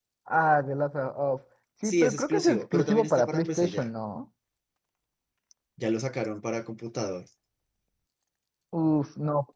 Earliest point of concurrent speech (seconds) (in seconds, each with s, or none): 1.8 s